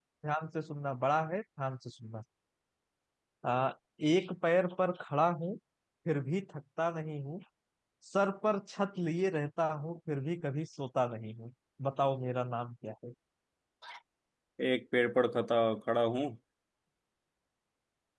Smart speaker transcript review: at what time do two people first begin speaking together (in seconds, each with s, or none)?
none